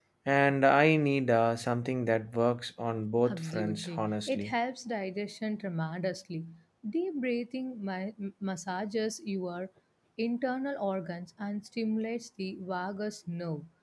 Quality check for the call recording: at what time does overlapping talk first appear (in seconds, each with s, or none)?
3.2 s